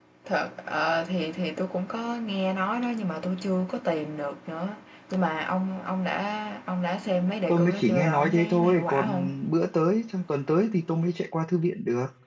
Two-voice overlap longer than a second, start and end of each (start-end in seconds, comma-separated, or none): 7.5-9.2